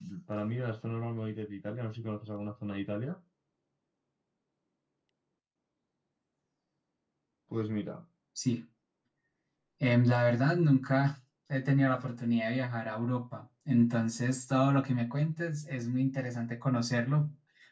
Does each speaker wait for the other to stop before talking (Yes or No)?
Yes